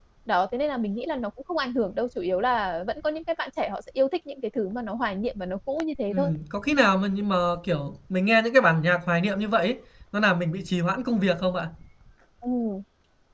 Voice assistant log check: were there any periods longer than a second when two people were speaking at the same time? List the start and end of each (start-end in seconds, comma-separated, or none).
none